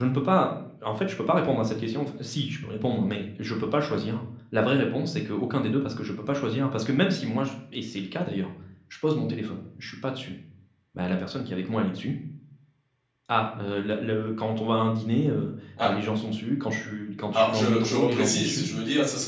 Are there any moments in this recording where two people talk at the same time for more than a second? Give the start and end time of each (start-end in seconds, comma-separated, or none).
17.3-18.7